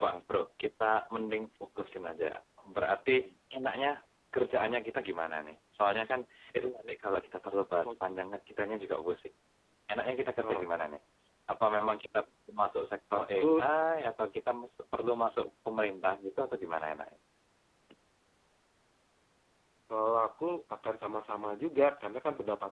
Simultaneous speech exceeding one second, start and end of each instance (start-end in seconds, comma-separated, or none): none